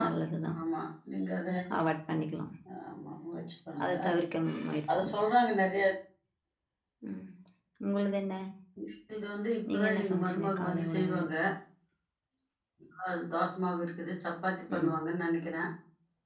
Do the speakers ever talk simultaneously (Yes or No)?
Yes